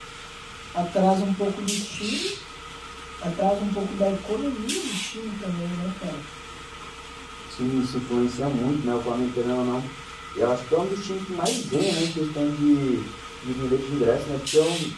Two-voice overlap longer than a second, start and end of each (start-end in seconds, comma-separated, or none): none